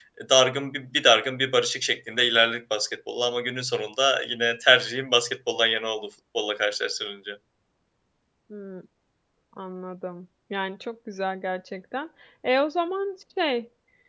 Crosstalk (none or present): none